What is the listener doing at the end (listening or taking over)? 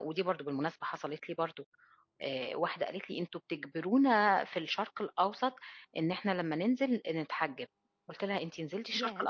listening